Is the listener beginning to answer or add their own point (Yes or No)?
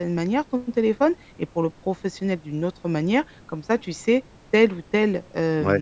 No